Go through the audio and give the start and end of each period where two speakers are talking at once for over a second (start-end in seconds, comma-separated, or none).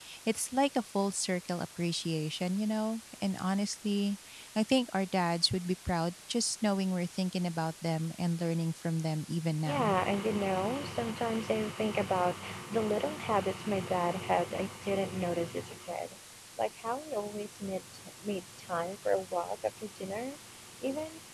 none